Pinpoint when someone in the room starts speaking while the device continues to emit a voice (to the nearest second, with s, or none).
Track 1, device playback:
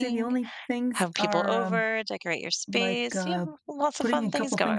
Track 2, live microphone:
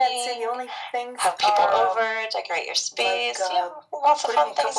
none